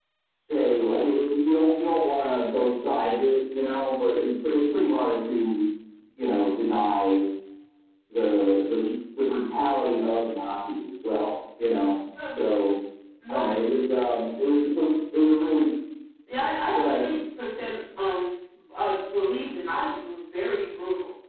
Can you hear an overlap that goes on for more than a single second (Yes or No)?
No